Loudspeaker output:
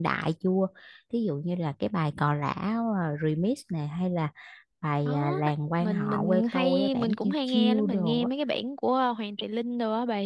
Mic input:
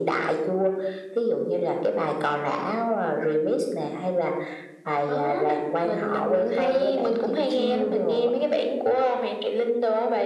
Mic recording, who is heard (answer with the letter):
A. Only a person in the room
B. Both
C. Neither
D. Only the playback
D